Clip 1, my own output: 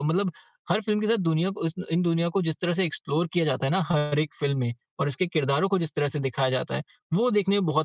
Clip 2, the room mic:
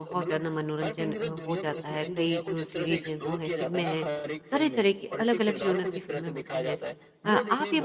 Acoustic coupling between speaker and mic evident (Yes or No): Yes